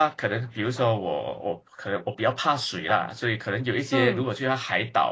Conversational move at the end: listening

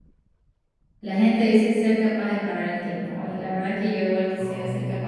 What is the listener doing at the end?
listening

